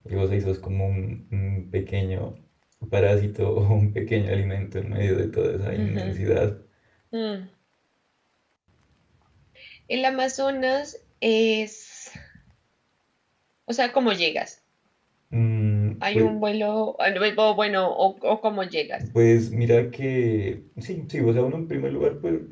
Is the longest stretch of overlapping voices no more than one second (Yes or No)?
Yes